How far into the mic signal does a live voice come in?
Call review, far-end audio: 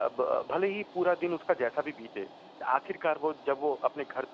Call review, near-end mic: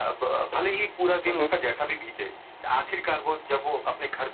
1.3 s

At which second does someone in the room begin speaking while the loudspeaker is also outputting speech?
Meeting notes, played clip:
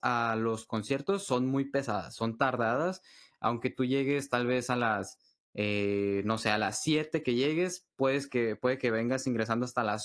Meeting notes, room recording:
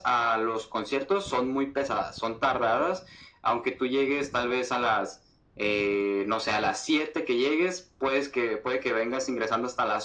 none

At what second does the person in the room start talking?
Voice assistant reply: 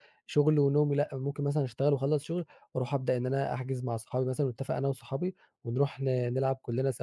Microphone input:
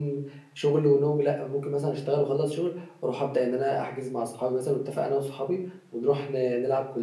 none

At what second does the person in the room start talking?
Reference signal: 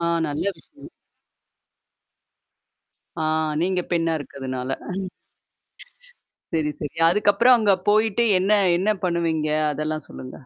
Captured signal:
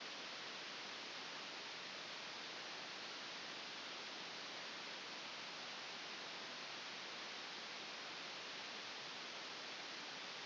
none

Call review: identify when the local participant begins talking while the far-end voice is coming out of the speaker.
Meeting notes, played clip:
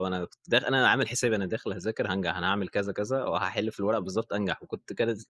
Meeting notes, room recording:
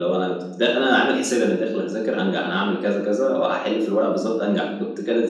none

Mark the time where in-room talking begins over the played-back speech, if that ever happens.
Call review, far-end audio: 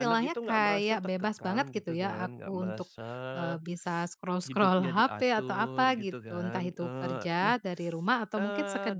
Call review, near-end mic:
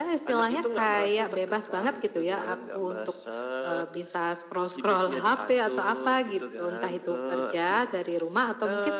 none

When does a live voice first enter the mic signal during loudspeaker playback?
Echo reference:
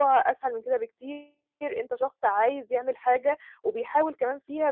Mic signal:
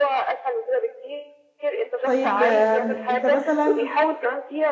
2.0 s

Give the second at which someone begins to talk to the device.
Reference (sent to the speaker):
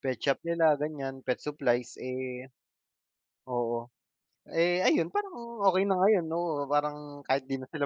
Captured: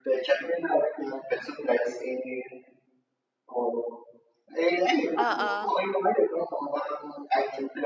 5.2 s

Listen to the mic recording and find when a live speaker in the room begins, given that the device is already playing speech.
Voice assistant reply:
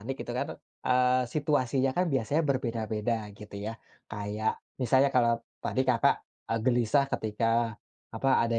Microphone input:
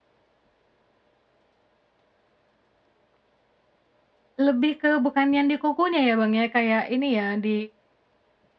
4.4 s

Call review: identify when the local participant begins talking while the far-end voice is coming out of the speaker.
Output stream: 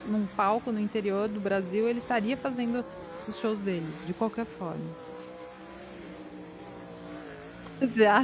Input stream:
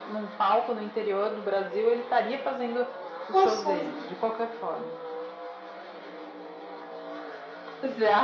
3.3 s

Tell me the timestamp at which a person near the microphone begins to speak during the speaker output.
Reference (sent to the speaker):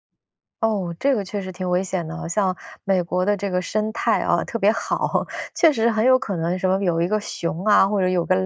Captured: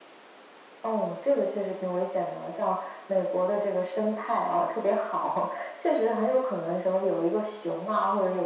none

